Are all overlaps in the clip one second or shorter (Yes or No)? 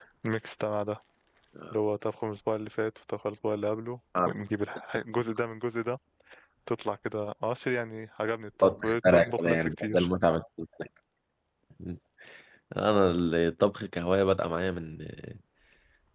No